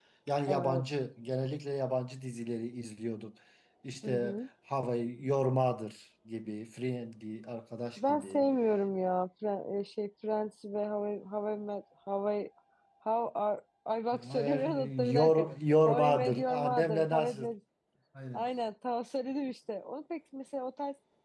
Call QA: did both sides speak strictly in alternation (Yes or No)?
No